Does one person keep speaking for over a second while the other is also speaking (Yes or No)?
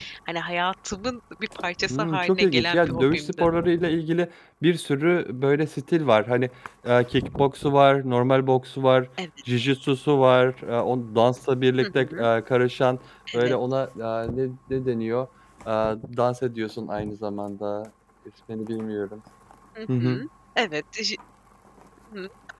Yes